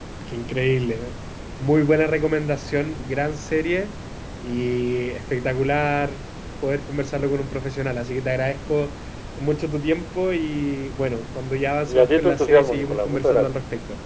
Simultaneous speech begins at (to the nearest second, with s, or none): 12 s